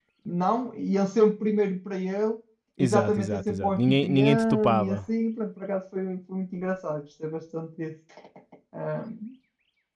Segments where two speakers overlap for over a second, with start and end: 2.8-5.0

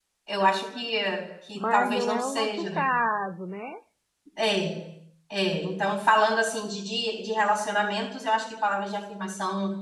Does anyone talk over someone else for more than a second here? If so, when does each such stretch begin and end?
1.5-2.8

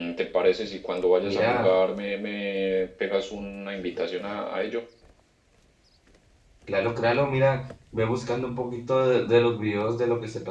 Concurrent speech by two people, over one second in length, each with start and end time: none

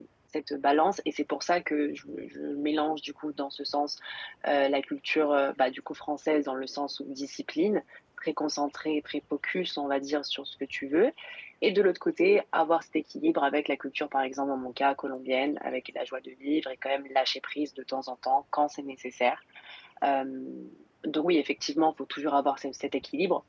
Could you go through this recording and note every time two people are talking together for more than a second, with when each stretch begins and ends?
none

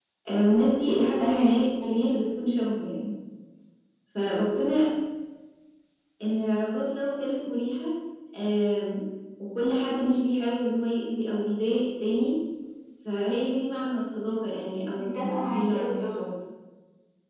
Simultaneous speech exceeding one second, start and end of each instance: 15.0-16.3

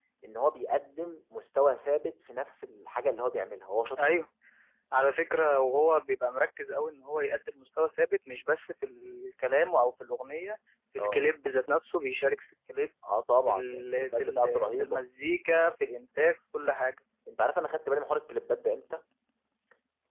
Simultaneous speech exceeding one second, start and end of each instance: 13.5-15.0

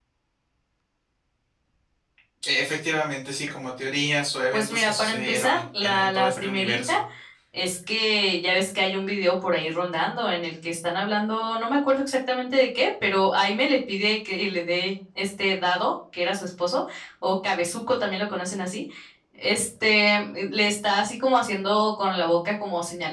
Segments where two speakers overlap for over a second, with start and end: 4.5-7.0

